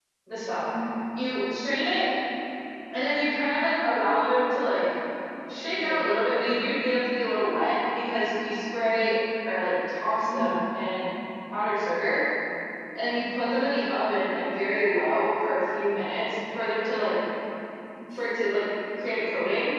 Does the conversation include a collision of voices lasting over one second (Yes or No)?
No